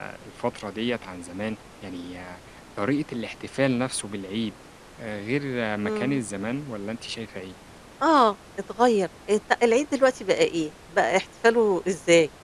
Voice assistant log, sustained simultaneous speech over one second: none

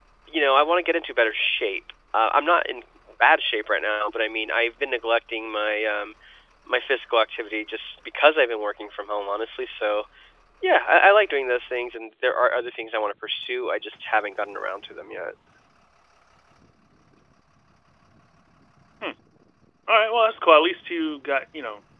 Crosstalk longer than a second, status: none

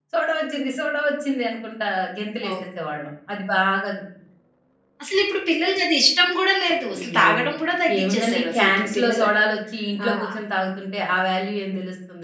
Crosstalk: present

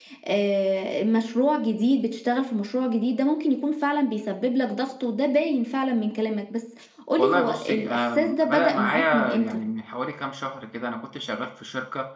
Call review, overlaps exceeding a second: present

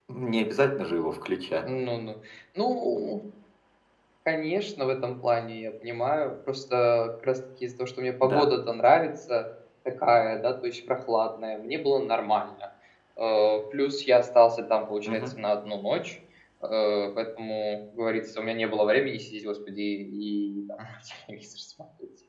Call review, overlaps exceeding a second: none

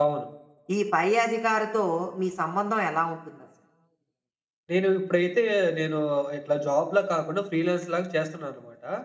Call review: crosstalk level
none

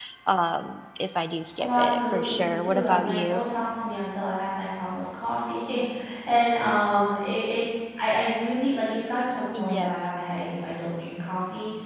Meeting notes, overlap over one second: present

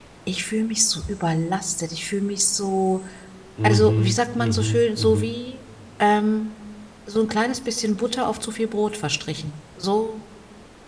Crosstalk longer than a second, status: present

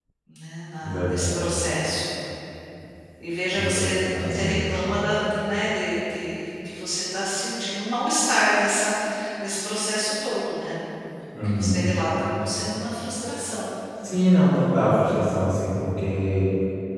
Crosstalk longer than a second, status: present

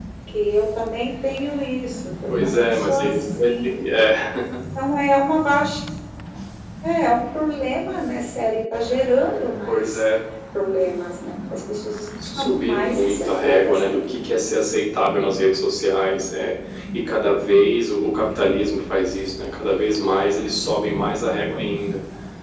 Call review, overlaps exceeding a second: present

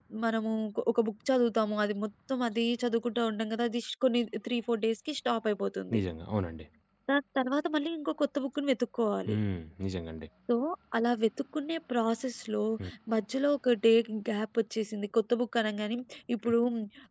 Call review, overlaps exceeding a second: none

